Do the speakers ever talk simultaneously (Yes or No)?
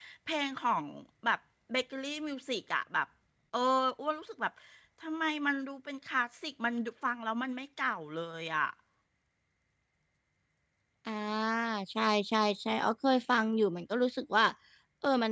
No